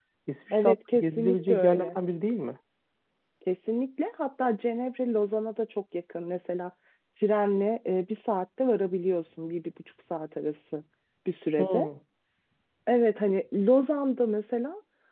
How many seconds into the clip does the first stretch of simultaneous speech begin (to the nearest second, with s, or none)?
1 s